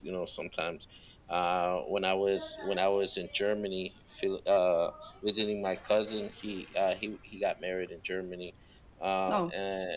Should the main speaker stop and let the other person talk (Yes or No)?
No